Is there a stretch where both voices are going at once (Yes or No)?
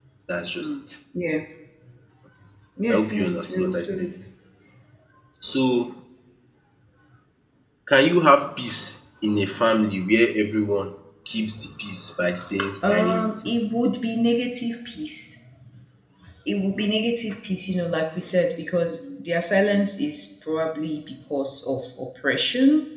Yes